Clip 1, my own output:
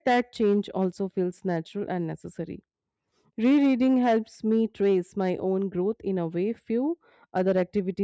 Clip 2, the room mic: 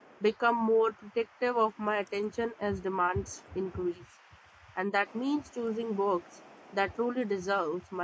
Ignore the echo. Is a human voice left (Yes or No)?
Yes